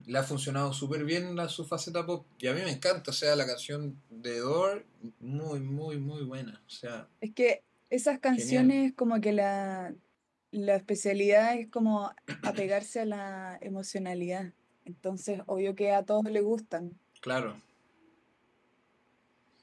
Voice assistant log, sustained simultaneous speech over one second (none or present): none